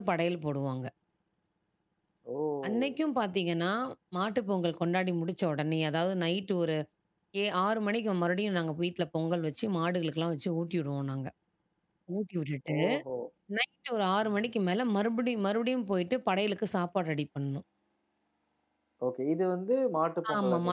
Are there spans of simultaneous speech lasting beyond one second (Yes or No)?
No